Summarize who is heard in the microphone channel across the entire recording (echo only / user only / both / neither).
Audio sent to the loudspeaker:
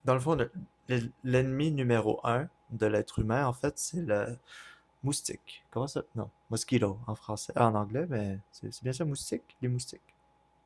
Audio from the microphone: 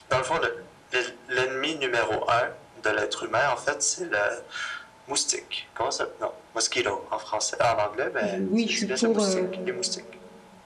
both